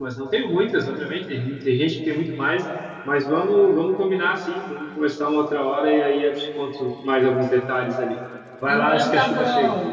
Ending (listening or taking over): taking over